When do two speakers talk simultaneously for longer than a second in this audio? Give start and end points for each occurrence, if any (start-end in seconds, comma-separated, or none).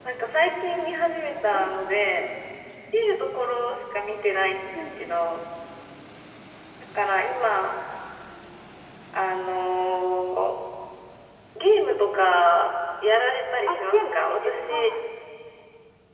13.7-14.9